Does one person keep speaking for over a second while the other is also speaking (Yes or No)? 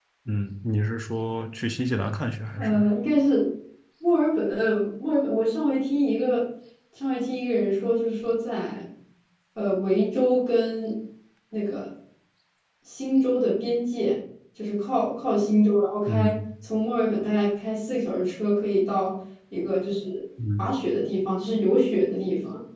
No